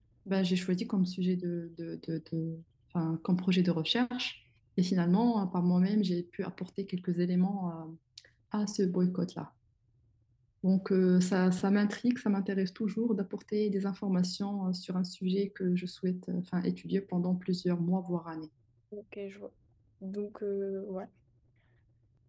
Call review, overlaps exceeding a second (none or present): none